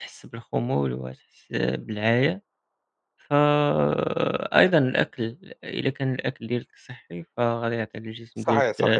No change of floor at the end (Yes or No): Yes